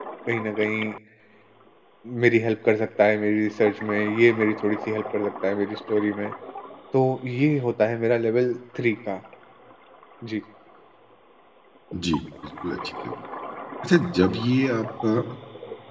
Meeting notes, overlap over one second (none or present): none